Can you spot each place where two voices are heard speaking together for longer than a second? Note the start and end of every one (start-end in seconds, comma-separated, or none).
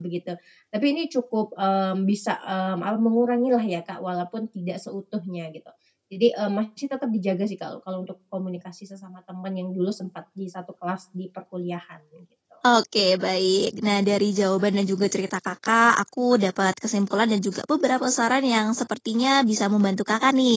none